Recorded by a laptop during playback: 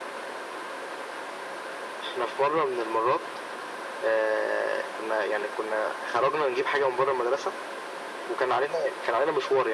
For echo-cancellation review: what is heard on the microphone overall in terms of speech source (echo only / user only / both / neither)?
echo only